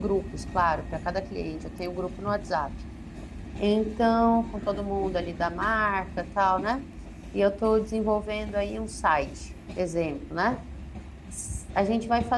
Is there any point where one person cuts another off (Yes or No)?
No